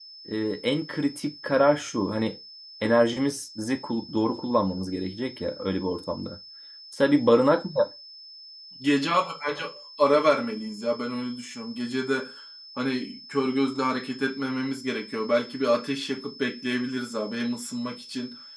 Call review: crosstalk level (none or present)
none